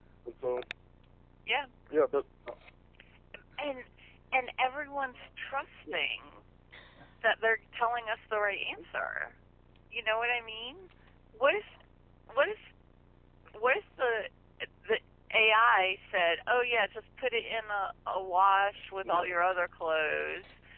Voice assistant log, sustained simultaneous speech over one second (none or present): none